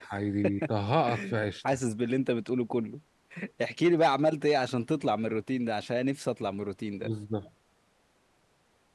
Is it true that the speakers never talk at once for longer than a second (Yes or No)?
Yes